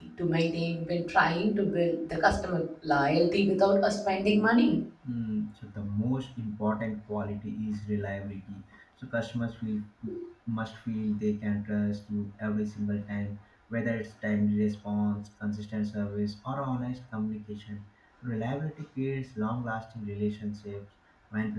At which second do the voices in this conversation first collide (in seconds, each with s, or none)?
none